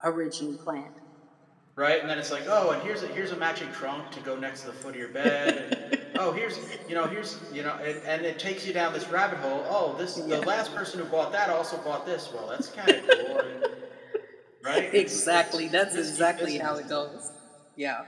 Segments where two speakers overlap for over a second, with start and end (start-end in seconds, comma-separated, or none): 14.9-16.8